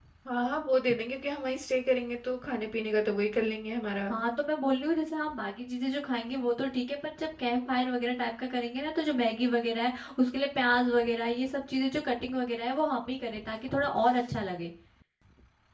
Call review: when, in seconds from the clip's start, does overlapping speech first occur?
none

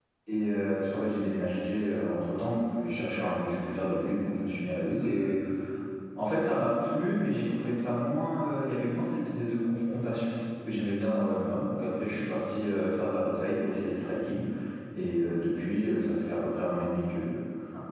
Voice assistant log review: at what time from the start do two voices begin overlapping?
none

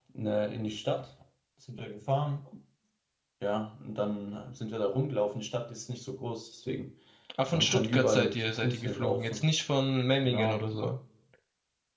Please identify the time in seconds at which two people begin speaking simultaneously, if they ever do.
7.5 s

